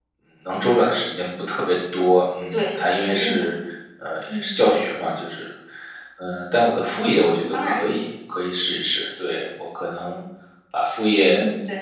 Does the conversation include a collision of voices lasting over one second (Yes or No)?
No